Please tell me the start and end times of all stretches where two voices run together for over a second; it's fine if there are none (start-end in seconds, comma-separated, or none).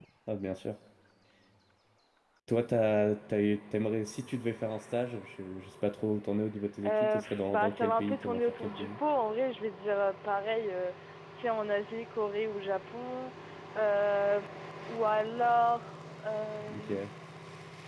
6.8-8.9